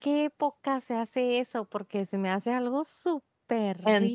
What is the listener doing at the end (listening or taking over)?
taking over